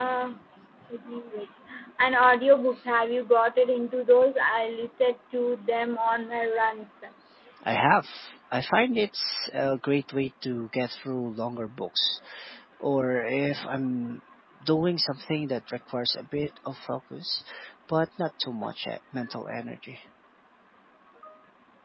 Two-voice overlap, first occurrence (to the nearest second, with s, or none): none